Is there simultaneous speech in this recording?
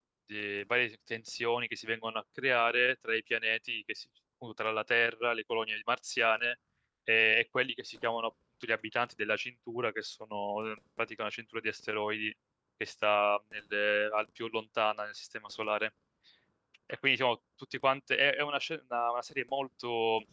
No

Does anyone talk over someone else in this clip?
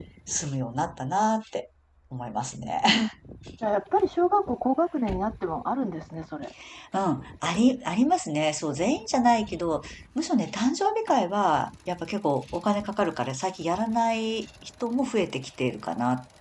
No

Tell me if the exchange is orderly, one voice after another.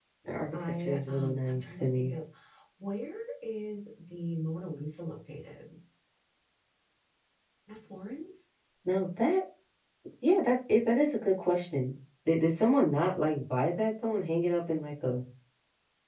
No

